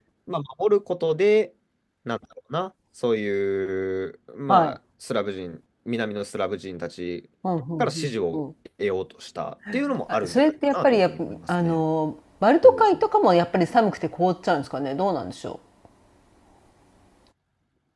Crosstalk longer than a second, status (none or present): present